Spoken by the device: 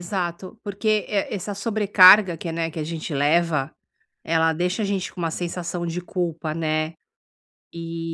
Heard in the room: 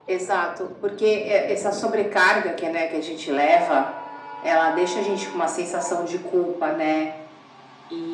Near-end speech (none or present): none